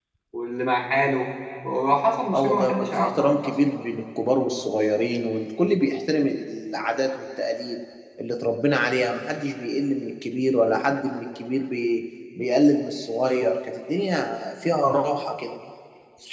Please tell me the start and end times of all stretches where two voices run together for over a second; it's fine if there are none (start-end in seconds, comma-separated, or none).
2.3-3.5